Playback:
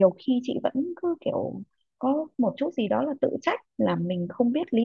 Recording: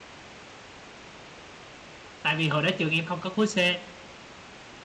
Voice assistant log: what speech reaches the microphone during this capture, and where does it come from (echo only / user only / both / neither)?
user only